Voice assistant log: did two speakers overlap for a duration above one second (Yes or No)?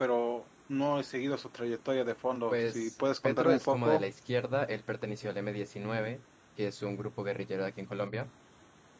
Yes